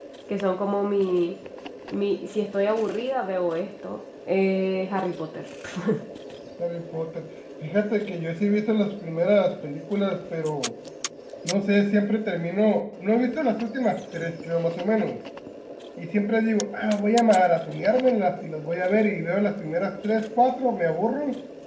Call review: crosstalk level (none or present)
none